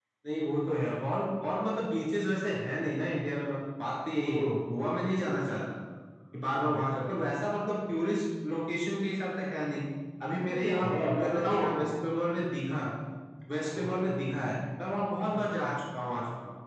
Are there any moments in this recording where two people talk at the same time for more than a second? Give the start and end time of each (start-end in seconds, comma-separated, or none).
10.5-11.9